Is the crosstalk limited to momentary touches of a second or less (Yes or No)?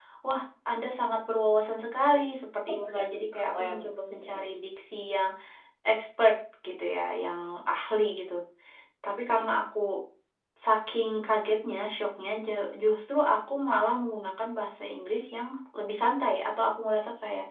No